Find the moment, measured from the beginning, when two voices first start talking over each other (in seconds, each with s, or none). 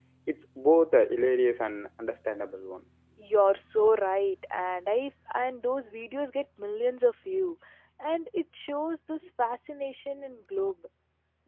none